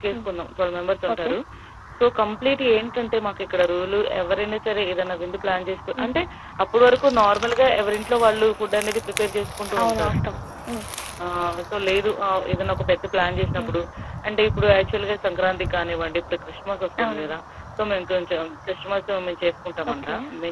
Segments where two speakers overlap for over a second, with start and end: none

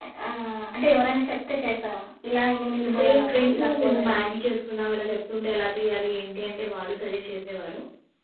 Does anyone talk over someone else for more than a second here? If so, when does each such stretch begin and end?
2.9-4.2

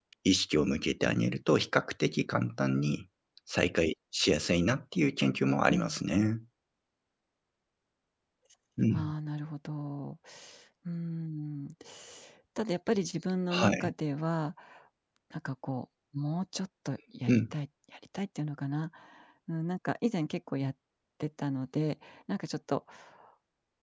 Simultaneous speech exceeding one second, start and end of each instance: none

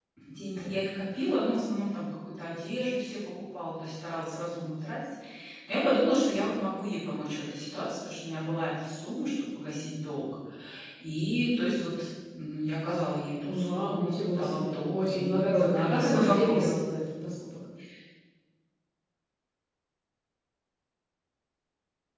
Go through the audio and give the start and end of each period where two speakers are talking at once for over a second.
13.4-16.7

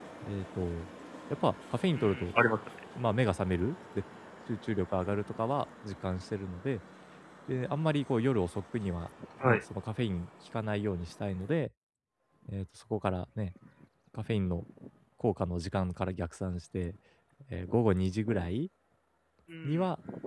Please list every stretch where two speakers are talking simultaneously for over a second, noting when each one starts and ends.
none

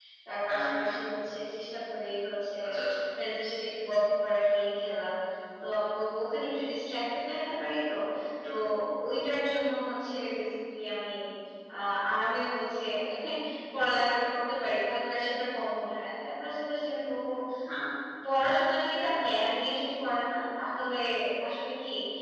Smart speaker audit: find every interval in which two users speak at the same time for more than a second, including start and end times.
none

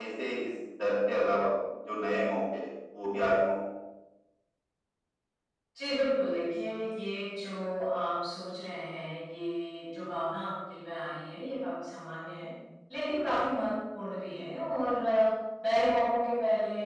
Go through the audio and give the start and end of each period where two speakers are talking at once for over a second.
none

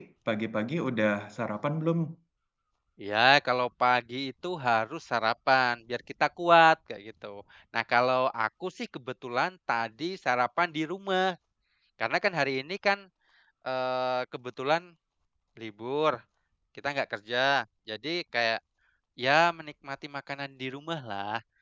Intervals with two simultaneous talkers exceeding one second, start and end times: none

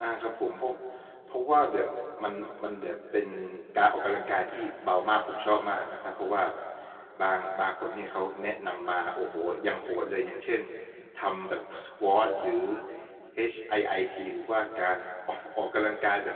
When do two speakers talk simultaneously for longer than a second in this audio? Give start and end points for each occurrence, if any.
none

